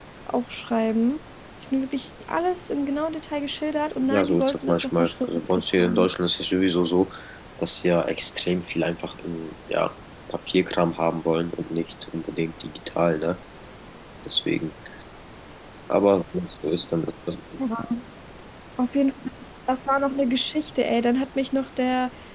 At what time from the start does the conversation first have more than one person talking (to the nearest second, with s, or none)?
4 s